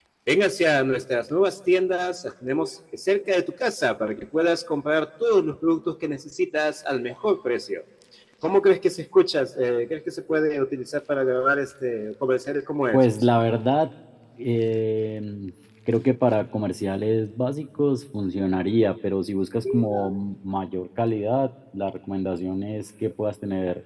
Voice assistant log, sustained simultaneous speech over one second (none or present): none